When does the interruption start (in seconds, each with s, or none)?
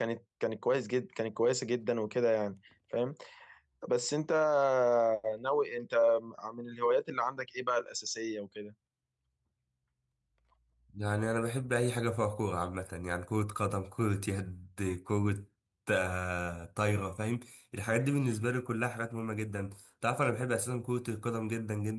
none